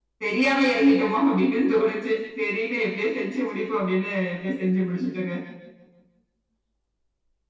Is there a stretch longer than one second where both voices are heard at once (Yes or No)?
No